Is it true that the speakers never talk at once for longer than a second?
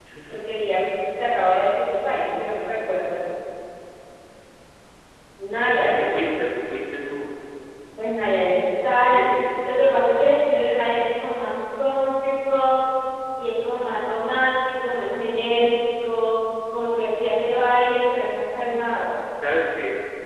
Yes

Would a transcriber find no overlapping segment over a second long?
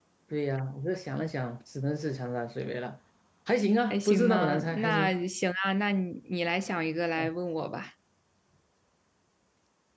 No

